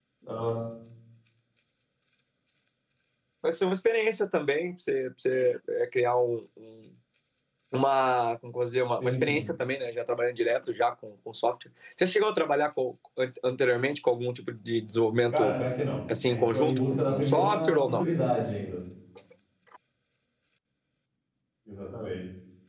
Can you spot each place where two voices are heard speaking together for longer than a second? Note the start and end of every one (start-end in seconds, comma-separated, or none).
16.3-18.0